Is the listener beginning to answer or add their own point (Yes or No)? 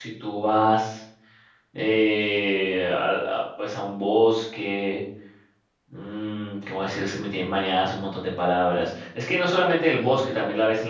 No